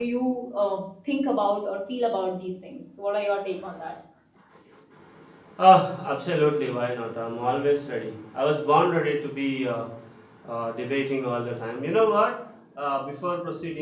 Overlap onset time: none

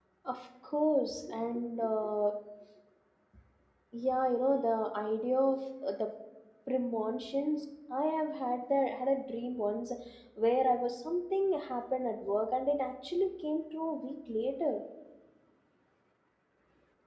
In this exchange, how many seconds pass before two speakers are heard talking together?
none

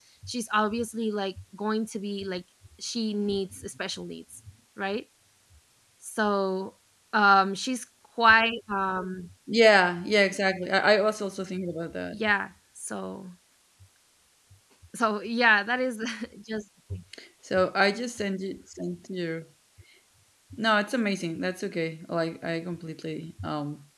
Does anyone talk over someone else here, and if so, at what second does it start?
none

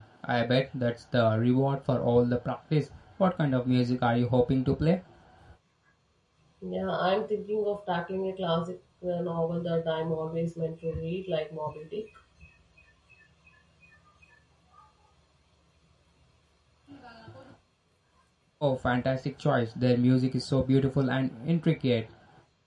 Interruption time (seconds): none

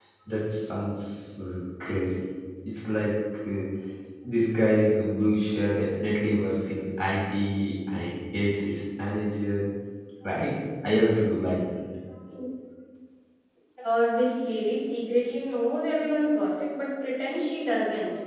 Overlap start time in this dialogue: none

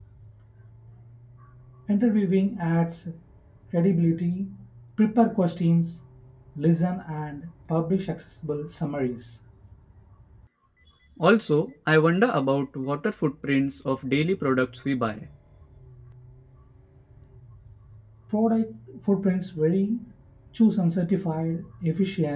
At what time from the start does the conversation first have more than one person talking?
none

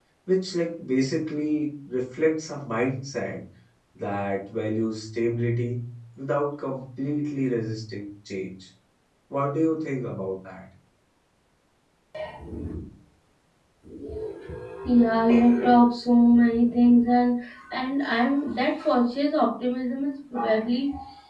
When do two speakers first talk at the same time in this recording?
none

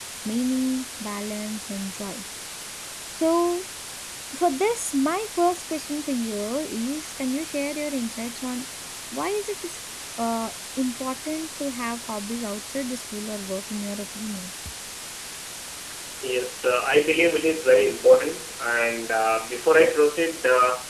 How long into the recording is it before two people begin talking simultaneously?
none

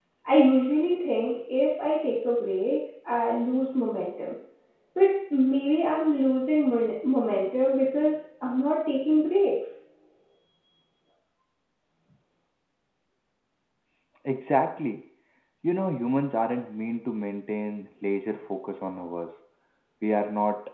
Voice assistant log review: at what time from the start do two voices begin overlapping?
none

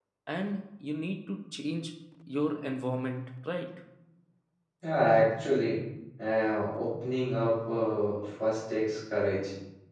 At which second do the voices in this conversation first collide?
none

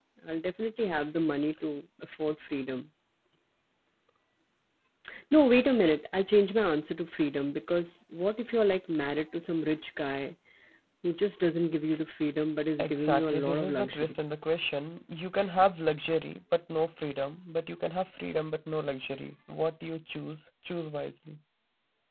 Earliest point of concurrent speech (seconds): 12.8 s

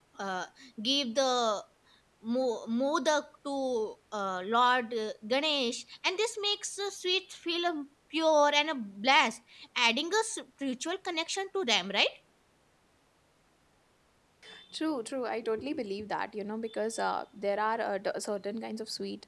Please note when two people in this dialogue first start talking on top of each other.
none

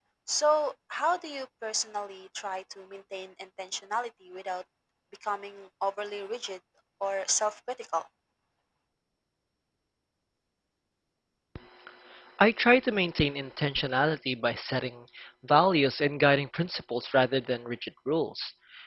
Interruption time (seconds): none

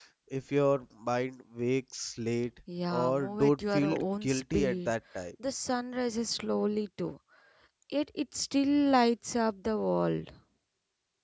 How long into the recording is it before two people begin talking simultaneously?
2.9 s

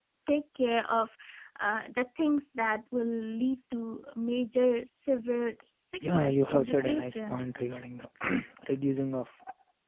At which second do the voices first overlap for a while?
6.0 s

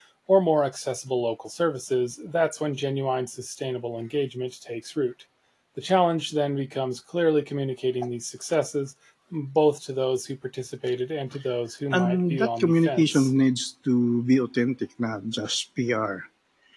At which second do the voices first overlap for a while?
11.9 s

